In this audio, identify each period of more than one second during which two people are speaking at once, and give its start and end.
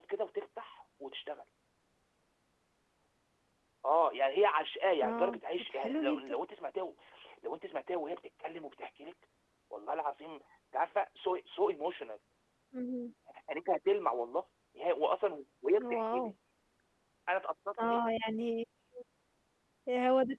5.0-6.3

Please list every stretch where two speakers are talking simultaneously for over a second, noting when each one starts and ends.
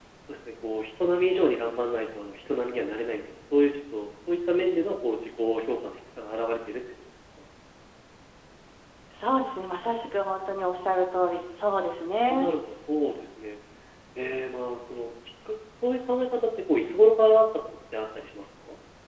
none

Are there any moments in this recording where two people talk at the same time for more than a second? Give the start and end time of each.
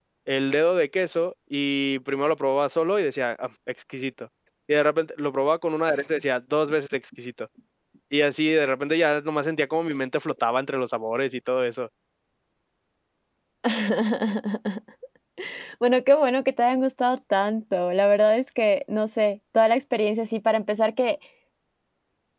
none

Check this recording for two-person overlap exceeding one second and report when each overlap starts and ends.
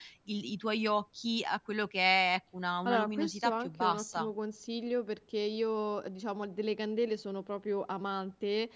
2.8-4.3

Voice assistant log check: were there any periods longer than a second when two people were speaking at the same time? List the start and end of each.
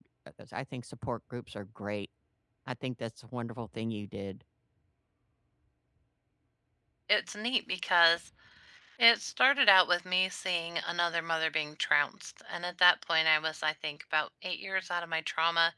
none

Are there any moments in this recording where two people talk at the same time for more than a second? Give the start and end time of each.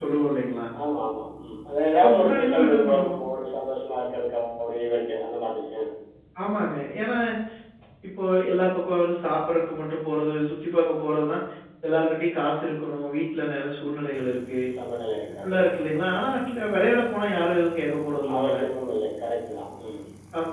2.0-3.2

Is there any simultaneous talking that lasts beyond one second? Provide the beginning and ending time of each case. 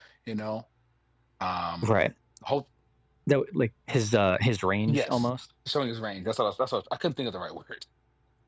none

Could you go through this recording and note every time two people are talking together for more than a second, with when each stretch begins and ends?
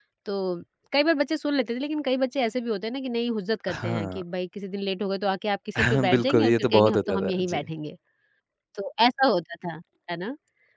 5.8-7.6

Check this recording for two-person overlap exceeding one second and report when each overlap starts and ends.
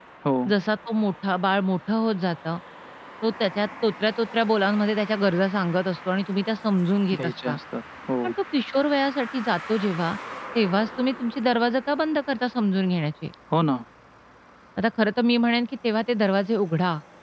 none

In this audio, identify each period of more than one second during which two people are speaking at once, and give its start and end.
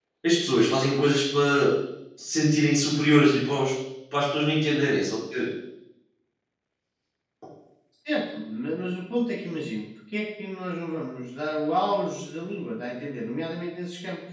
none

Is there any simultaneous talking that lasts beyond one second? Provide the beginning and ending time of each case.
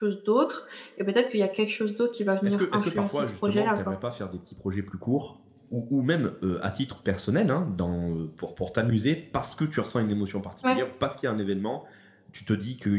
2.4-3.8

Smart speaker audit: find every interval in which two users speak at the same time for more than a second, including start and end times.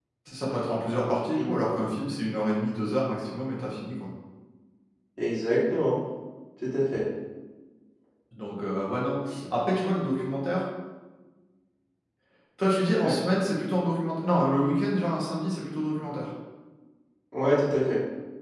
none

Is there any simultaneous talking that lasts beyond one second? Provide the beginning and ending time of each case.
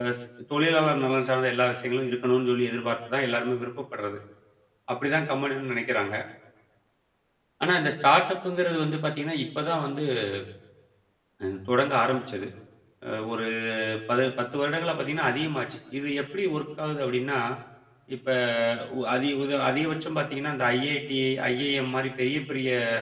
none

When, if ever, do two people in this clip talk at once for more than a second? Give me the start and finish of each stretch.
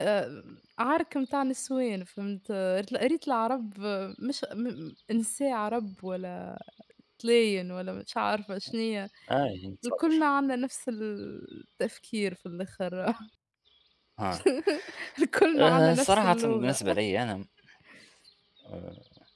15.5-16.8

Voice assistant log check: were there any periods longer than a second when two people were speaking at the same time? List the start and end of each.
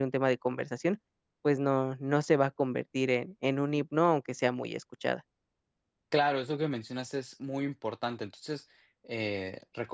none

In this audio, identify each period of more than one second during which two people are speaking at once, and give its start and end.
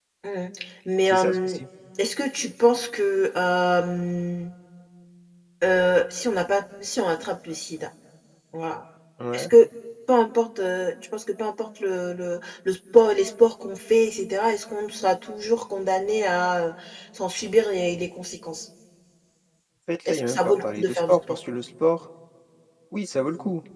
20.1-21.4

